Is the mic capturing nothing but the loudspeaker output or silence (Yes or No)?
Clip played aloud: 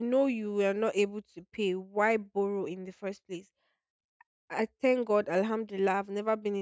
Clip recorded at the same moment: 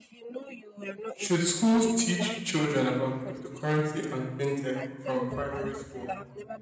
No